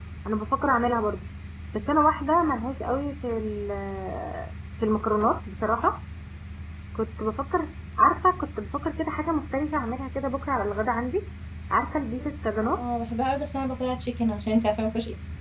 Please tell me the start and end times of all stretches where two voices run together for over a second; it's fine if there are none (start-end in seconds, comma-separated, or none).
none